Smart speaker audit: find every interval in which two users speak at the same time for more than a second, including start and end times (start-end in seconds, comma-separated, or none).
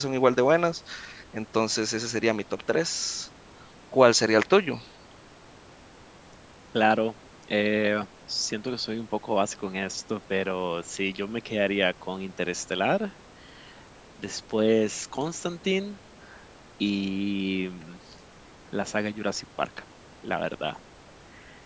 none